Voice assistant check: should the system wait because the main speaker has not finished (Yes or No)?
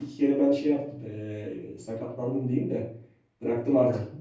Yes